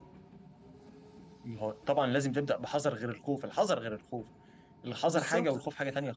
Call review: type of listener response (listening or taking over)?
taking over